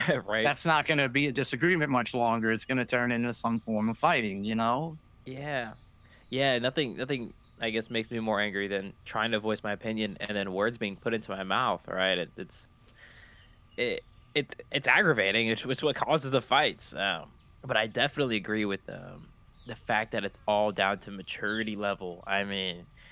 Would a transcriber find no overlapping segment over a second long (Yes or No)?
Yes